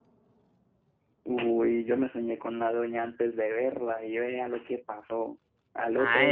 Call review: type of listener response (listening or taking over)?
taking over